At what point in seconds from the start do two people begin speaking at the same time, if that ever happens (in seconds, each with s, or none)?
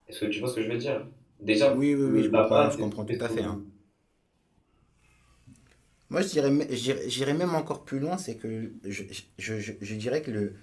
2.0 s